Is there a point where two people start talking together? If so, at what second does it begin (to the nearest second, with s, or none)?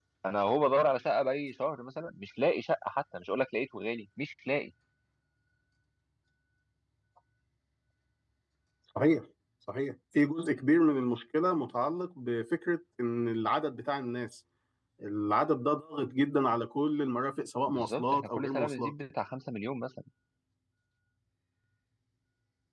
18 s